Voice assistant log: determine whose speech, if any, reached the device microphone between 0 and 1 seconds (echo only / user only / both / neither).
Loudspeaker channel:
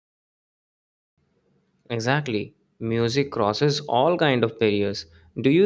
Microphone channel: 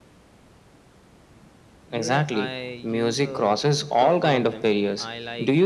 neither